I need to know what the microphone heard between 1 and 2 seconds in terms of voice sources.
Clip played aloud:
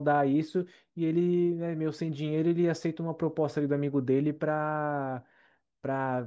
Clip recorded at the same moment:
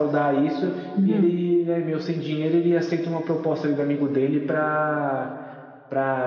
both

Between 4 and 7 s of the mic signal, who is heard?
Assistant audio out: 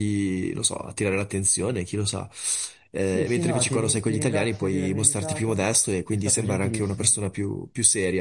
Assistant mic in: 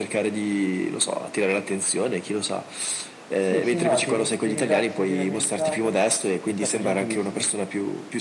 echo only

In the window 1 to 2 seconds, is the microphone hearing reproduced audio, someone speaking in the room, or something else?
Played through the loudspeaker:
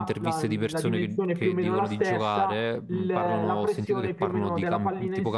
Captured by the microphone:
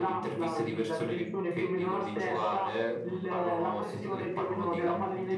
echo only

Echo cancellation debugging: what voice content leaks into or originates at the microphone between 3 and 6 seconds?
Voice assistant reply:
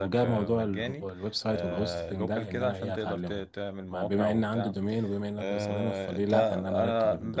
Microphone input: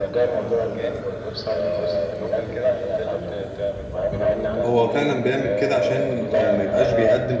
both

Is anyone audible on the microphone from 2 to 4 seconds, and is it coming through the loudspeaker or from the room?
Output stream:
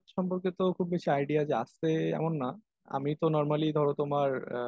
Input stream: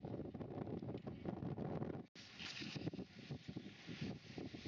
neither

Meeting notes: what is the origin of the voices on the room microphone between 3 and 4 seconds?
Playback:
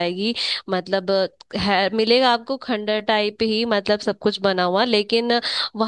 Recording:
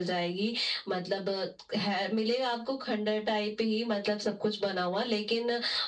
echo only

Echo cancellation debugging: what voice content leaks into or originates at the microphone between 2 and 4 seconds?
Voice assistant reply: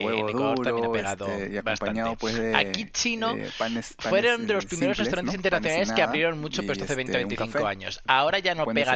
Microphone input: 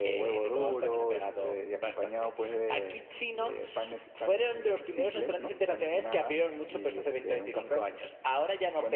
echo only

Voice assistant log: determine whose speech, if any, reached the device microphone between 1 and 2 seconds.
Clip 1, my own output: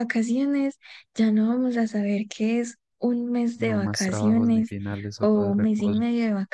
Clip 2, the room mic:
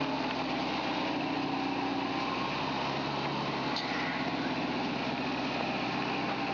neither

